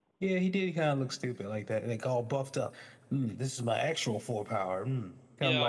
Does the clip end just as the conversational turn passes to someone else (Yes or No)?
Yes